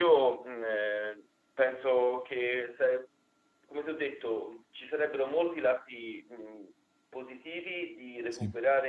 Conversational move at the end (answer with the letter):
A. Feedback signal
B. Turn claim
A